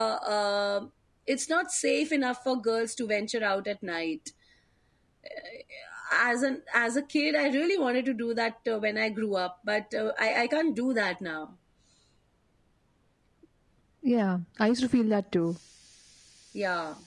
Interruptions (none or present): none